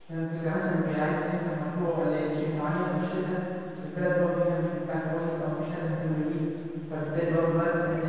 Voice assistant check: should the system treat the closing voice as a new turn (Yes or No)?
No